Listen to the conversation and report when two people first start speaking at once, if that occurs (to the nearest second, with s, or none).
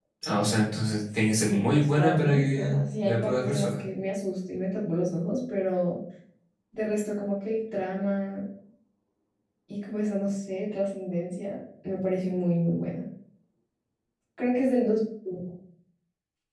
1 s